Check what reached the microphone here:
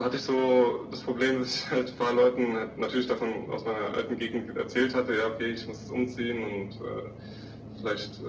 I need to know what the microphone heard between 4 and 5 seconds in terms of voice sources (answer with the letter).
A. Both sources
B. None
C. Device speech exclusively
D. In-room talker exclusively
C